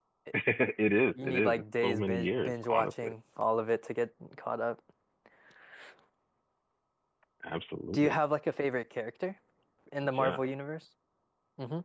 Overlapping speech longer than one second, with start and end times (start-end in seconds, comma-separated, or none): 1.2-3.1